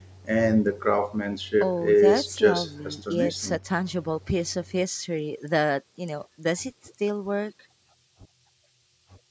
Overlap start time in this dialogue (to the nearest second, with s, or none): 2 s